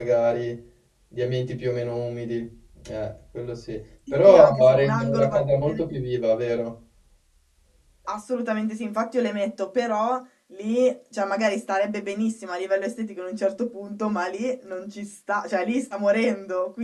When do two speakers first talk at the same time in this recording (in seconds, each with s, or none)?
4.2 s